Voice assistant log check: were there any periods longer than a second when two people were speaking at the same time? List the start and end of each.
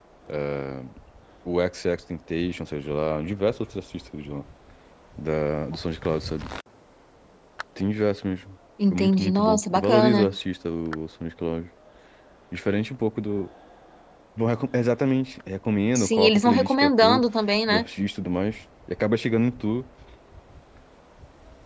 8.9-10.3, 16.0-17.2

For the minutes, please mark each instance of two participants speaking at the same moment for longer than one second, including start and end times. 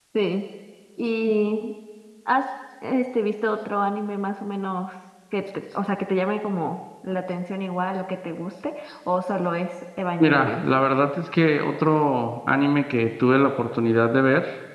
none

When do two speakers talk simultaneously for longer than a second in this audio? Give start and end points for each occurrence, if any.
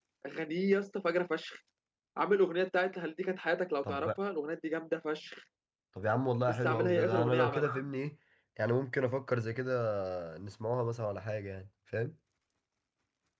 6.5-7.8

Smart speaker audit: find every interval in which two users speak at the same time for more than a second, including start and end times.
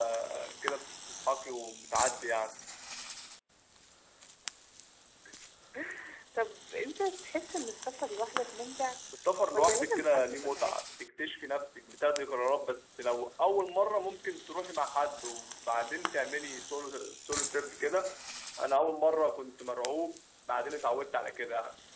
9.5-10.8

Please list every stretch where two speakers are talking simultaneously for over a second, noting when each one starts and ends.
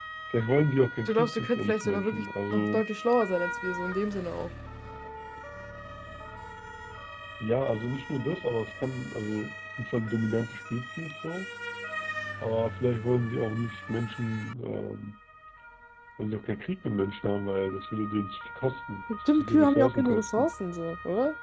1.1-2.8, 19.3-20.5

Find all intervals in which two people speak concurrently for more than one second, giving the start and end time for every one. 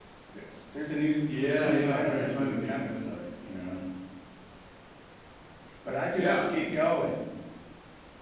1.4-3.0

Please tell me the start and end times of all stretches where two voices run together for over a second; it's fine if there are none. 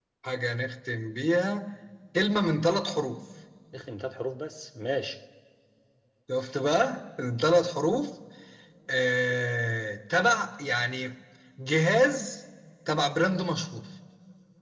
none

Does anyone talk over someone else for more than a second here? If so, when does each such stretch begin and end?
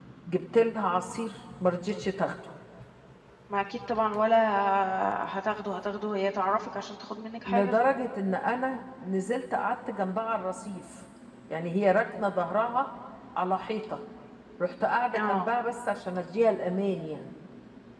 none

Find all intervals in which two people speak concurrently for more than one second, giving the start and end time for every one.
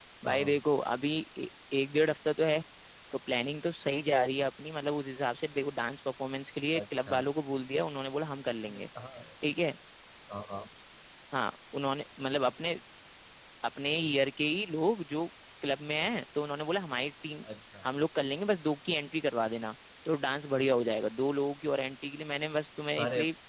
none

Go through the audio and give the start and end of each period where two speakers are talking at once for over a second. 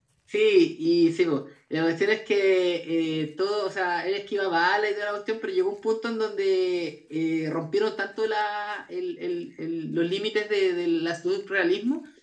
none

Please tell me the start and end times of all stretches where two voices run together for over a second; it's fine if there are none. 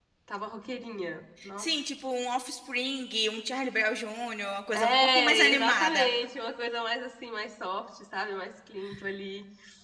4.7-6.1

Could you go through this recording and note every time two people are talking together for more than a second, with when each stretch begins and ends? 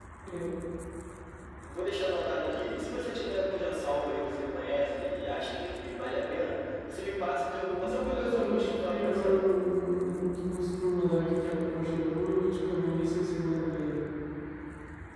7.8-9.3

